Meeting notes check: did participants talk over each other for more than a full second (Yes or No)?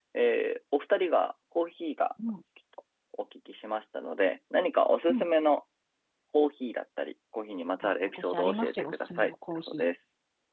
Yes